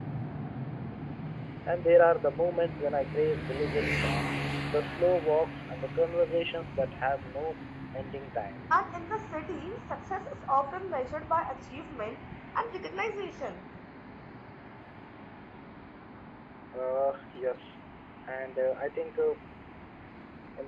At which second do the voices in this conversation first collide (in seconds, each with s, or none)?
none